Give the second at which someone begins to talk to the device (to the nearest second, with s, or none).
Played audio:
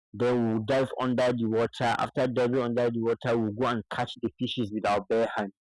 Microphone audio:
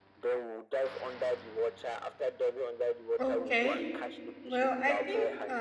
3 s